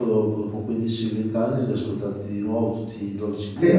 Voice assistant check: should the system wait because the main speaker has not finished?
No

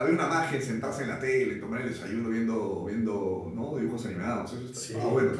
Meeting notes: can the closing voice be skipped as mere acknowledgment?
No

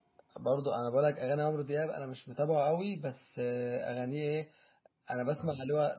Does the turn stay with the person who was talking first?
Yes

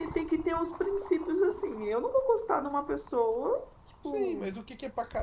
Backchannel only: No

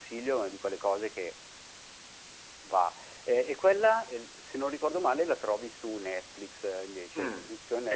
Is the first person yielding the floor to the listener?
Yes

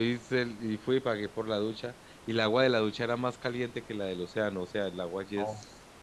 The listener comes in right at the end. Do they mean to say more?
No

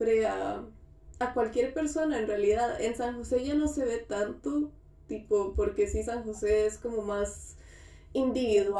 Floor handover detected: No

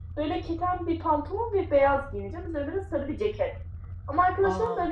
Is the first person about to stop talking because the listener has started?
No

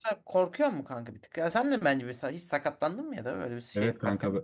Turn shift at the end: Yes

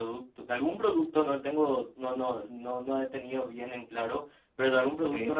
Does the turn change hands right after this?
No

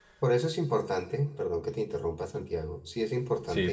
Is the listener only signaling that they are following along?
Yes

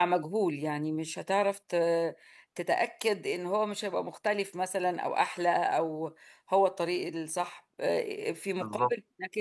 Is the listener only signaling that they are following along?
Yes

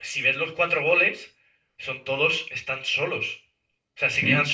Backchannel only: Yes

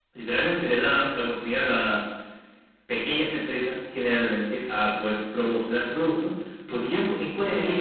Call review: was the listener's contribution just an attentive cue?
Yes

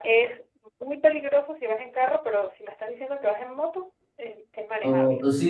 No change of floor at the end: No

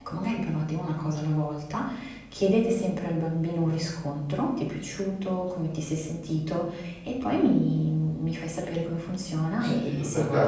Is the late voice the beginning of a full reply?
Yes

